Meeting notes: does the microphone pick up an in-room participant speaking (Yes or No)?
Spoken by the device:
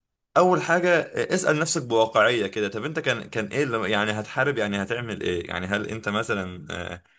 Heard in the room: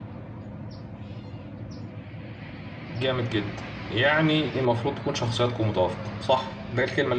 Yes